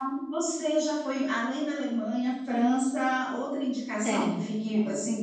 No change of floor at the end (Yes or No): Yes